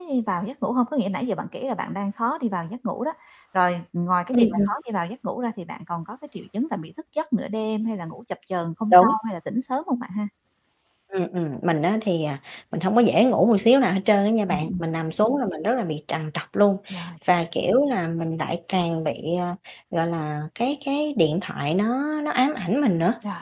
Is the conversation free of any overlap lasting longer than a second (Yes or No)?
Yes